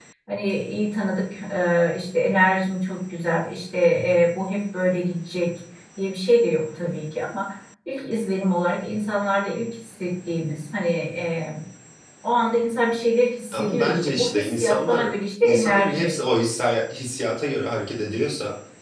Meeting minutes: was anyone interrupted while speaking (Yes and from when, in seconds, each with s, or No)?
Yes, from 13.5 s